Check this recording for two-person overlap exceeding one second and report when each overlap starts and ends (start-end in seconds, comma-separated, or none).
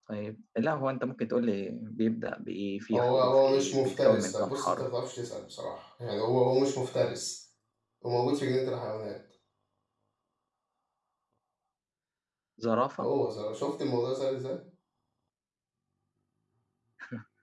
2.9-4.9